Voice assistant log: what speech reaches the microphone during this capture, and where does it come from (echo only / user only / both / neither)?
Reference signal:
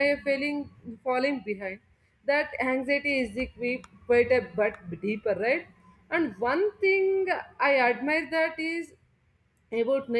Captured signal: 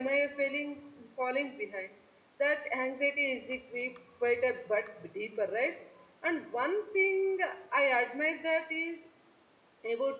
echo only